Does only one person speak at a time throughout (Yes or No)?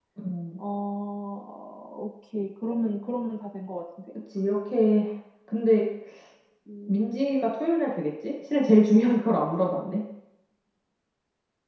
Yes